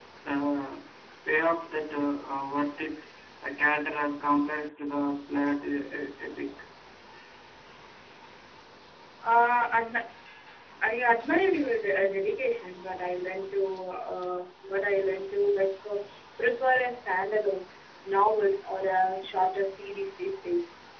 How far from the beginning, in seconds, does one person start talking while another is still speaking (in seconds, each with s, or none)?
none